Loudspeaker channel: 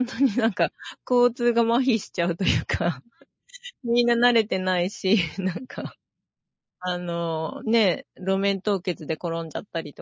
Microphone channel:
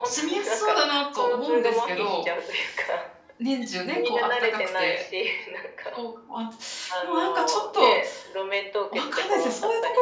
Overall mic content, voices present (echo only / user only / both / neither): both